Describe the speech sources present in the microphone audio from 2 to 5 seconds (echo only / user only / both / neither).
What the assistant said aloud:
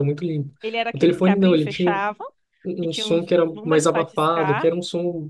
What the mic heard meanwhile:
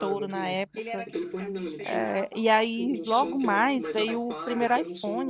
both